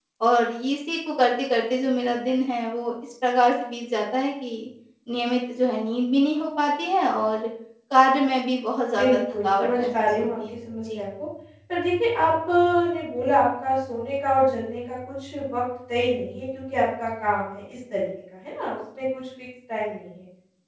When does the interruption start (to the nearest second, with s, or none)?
9 s